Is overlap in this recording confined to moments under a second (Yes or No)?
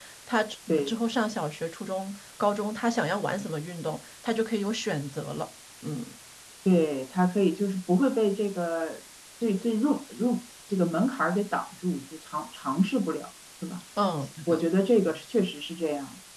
Yes